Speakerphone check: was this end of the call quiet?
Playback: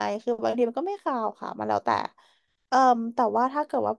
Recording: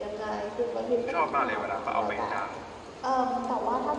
No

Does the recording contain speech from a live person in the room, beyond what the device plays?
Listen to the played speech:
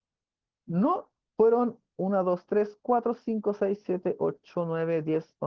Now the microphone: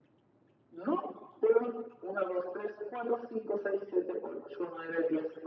No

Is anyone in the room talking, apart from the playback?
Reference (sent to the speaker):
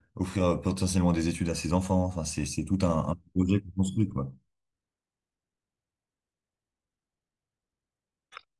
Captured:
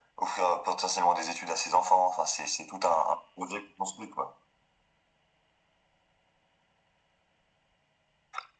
No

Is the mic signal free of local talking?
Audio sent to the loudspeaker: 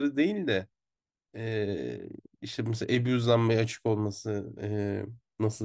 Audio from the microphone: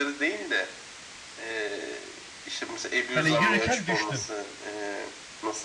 No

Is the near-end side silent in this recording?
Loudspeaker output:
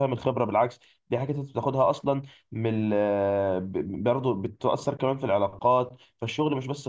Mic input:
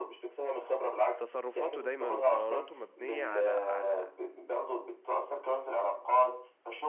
No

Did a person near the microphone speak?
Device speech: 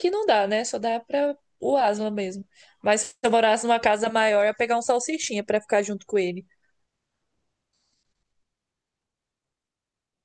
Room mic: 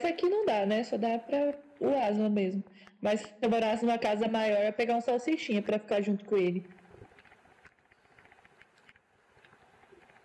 No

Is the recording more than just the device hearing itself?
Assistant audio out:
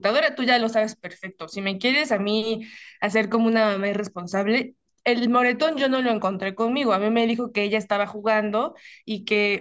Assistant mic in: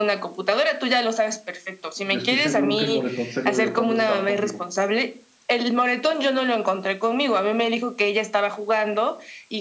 Yes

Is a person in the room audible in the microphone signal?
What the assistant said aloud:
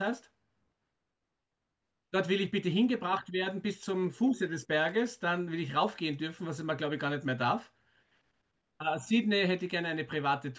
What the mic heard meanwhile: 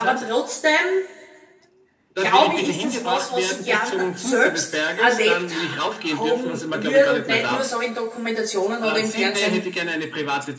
Yes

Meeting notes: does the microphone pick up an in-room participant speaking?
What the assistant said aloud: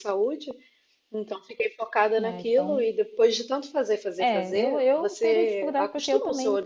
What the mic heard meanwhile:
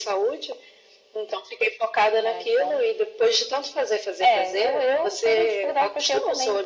No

